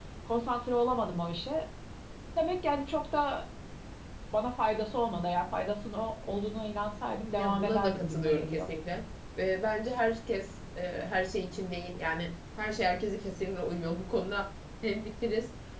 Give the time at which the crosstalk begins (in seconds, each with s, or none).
7.3 s